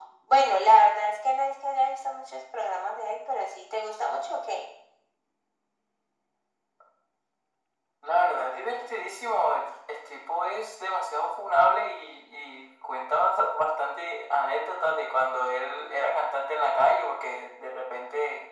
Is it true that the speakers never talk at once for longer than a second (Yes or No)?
Yes